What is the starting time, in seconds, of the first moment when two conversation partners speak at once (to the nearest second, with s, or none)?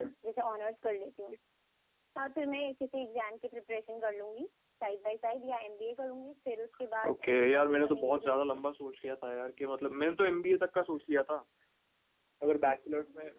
7 s